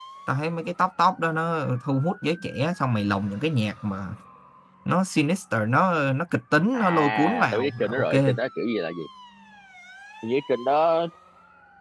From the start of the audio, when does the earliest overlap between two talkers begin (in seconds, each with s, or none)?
6.7 s